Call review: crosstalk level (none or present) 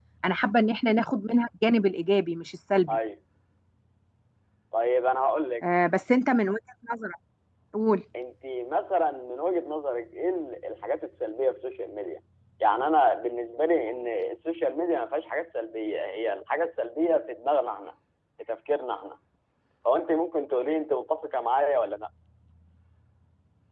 none